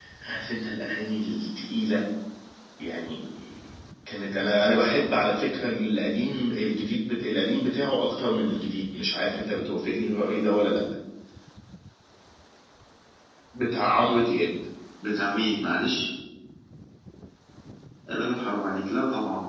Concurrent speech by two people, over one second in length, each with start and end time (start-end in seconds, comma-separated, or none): none